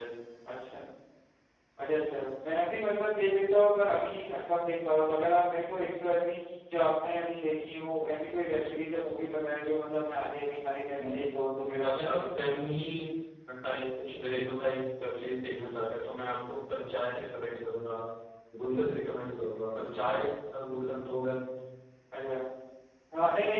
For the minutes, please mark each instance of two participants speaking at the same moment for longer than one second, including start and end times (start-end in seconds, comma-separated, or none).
none